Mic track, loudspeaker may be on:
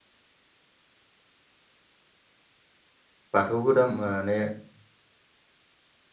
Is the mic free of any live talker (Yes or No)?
No